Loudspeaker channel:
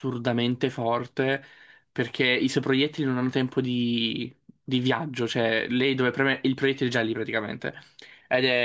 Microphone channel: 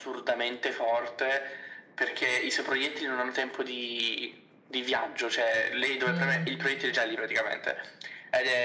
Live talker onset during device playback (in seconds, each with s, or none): 6.1 s